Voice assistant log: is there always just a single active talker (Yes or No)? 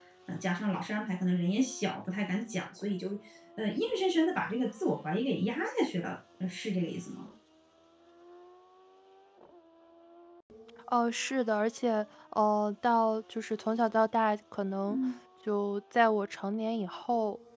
Yes